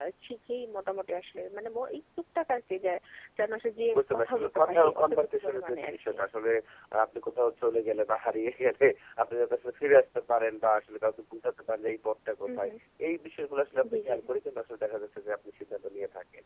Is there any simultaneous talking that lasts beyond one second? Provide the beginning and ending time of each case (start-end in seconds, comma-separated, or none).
4.0-6.2